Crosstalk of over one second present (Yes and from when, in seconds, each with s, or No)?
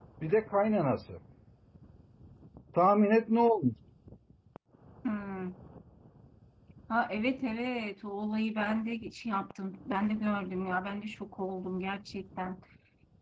No